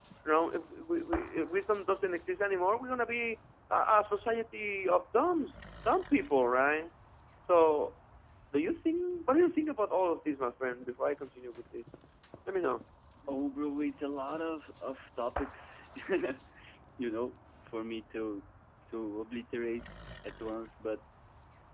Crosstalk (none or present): none